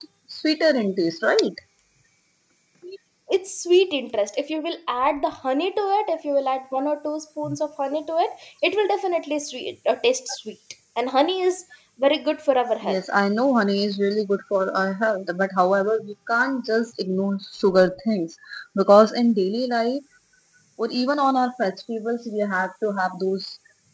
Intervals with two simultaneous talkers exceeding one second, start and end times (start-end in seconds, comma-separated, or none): none